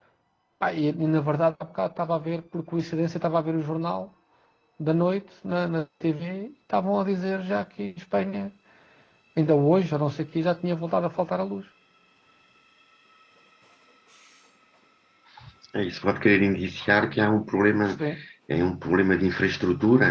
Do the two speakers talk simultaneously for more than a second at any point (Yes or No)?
No